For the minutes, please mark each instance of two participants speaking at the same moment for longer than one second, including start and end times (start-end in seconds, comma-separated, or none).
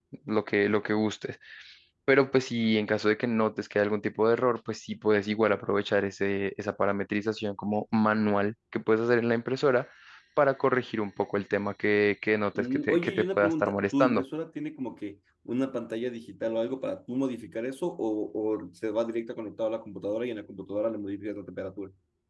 12.6-14.2